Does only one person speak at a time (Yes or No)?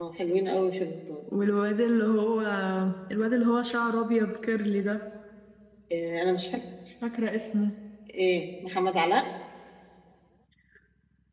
Yes